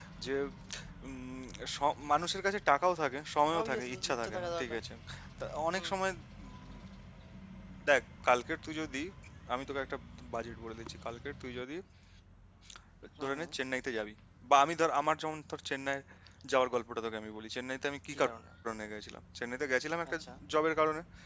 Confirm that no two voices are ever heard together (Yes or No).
No